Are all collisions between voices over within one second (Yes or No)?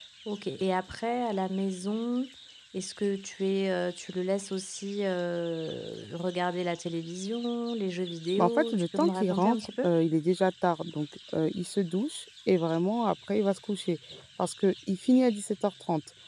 No